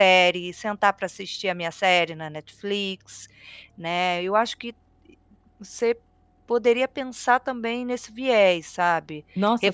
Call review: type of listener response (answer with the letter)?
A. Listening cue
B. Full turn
B